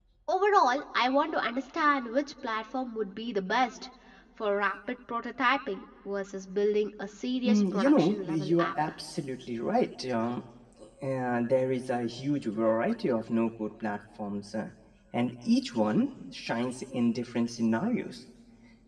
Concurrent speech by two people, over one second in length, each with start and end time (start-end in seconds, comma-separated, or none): 7.4-8.7